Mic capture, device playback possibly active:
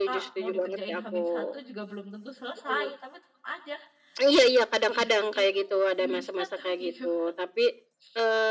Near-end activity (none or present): present